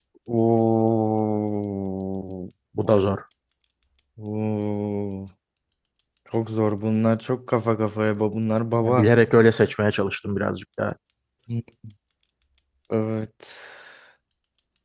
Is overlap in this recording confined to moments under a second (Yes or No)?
Yes